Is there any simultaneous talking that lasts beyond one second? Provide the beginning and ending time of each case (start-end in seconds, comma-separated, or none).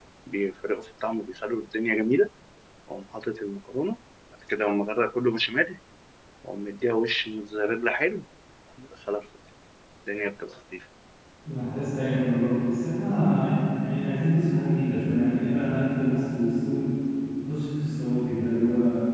none